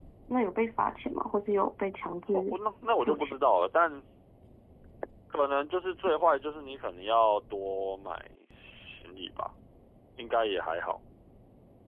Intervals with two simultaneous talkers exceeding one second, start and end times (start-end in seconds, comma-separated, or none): none